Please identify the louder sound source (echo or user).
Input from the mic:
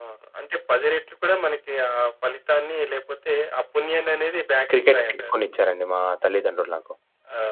user